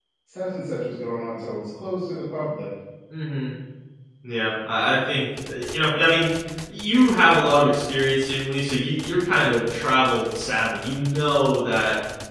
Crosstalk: none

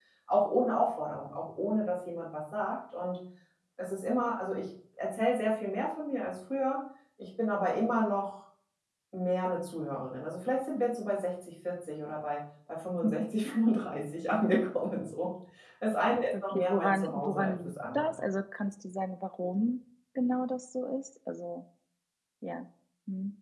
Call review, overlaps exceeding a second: present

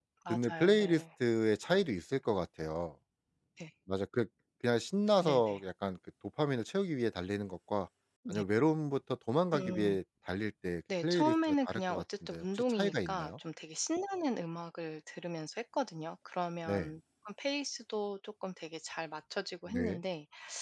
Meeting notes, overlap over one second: present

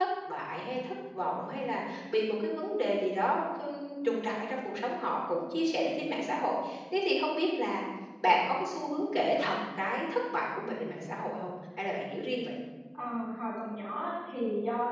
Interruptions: none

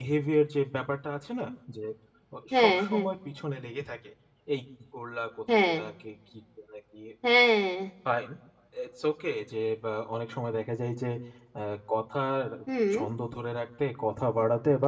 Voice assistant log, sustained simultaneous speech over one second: none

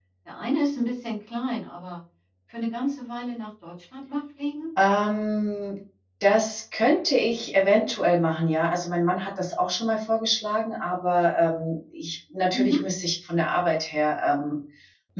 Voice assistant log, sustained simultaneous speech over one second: none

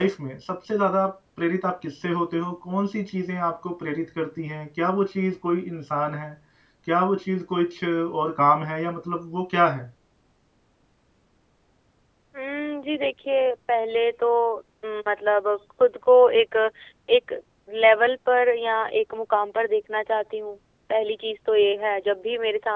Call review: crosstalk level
none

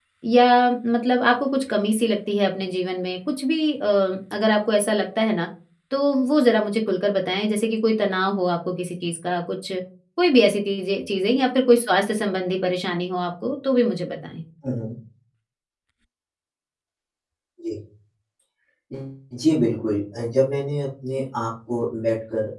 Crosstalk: none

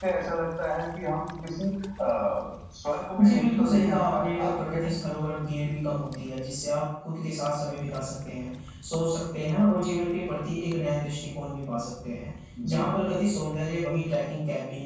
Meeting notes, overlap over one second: present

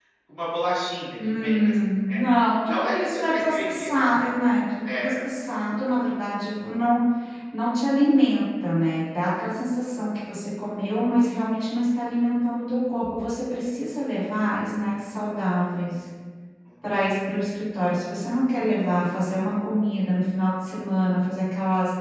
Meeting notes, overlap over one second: present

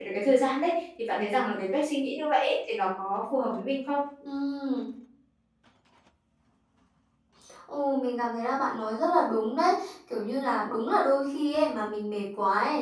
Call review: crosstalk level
none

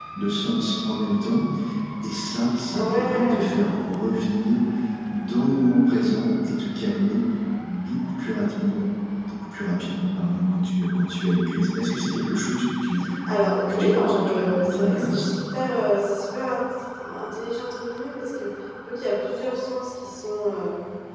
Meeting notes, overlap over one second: present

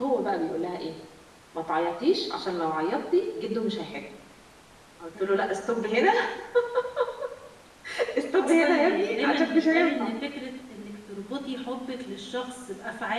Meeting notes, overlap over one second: present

